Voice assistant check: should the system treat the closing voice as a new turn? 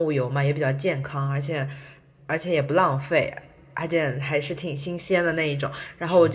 No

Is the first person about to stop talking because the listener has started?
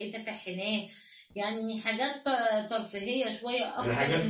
Yes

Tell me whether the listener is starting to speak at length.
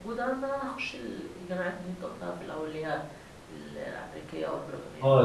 Yes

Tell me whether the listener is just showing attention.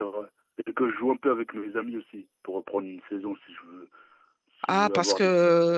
No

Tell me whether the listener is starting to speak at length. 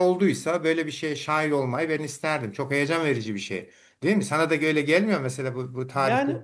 Yes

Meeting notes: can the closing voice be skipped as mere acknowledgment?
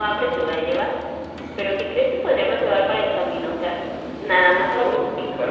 No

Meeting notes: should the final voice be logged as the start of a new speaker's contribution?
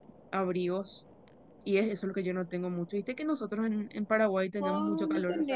Yes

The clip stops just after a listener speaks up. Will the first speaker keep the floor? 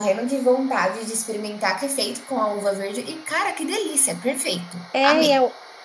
No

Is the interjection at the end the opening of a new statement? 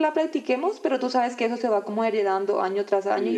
Yes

